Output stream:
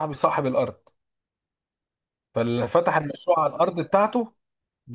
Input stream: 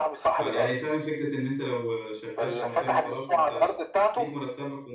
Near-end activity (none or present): present